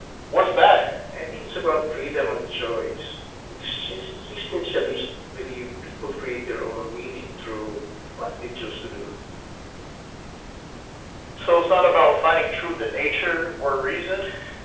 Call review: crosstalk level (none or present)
none